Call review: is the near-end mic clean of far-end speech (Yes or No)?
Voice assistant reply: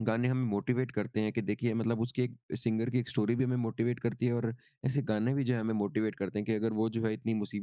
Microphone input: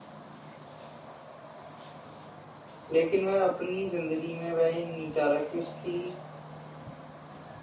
Yes